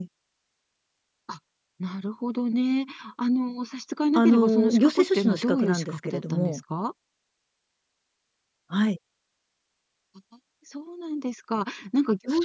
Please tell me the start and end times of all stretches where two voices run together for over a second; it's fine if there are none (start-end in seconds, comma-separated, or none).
4.2-6.6